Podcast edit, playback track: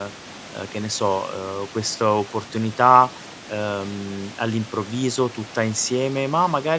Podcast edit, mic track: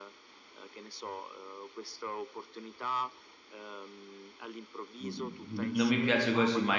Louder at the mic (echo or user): user